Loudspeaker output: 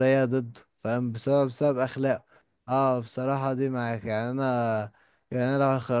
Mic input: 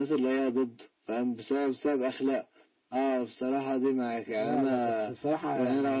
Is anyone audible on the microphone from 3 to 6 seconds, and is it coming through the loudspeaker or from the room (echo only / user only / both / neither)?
both